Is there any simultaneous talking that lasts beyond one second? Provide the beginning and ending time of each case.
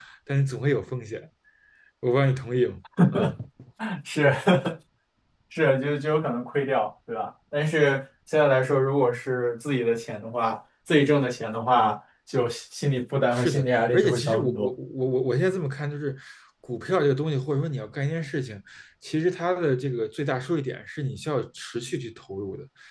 13.3-14.7

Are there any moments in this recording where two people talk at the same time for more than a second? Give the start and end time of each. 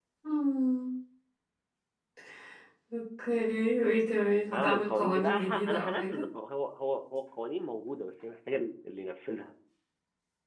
4.5-6.2

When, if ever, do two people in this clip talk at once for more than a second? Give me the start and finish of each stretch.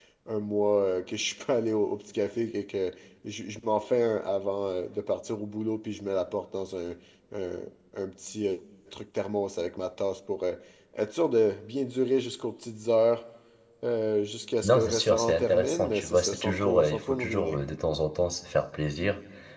14.6-17.6

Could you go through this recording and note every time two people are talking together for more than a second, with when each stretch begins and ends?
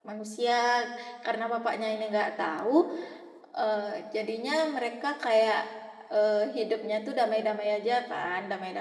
none

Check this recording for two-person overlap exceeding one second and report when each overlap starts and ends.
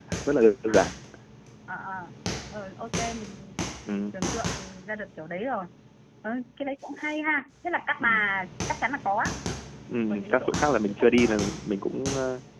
10.1-11.4

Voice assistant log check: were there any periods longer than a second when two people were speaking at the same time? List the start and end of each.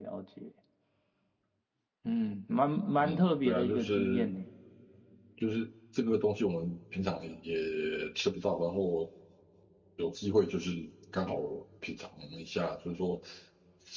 3.0-4.3

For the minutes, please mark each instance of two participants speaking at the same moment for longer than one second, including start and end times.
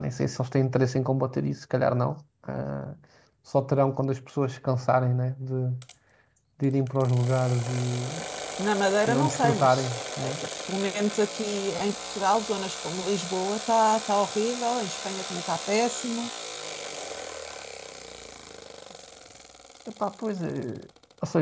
9.1-10.3

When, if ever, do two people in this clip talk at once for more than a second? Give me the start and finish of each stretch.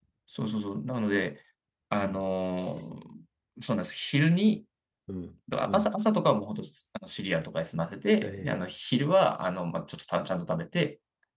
none

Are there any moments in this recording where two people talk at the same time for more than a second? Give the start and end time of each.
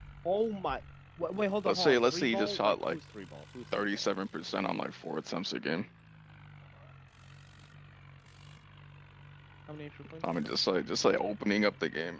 1.6-3.0

